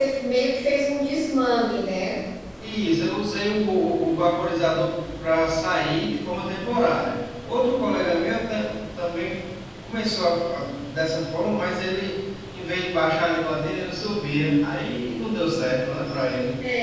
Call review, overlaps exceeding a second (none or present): none